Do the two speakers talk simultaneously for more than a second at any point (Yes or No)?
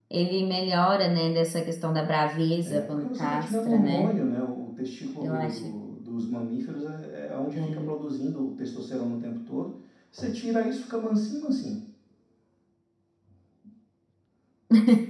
Yes